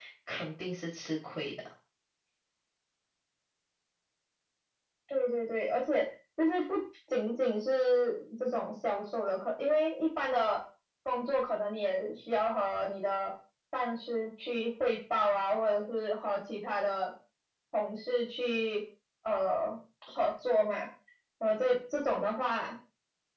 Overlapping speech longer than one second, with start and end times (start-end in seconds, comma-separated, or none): none